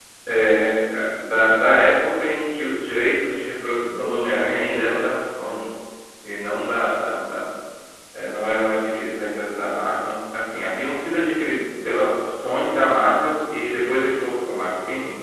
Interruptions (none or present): present